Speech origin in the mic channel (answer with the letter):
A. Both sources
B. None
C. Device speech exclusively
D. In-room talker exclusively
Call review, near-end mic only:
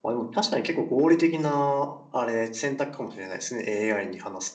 D